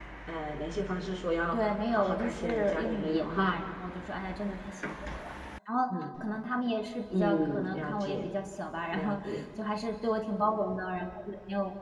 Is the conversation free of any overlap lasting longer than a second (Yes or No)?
No